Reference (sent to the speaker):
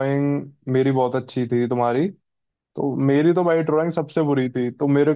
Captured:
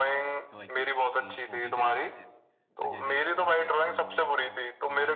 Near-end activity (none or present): present